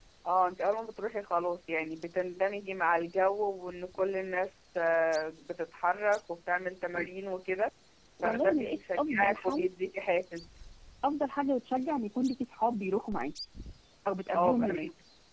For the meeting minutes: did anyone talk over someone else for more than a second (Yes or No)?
Yes